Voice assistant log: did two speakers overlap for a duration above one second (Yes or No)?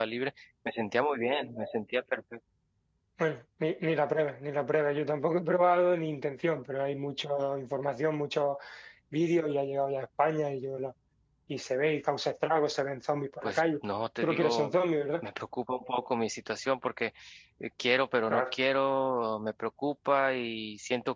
No